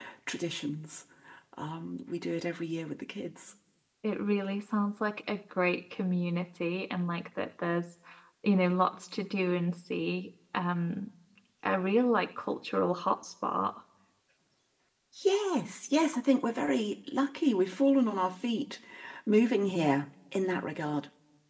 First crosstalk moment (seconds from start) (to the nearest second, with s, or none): none